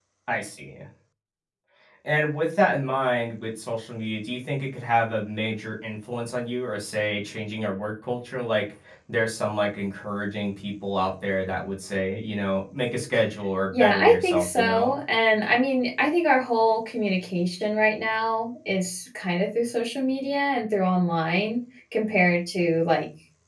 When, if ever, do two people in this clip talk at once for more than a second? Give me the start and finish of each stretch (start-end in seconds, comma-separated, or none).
13.7-15.0